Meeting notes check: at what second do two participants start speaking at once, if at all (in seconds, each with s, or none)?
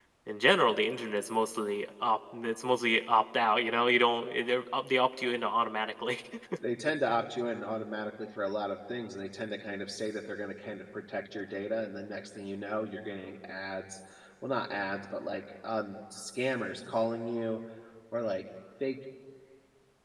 none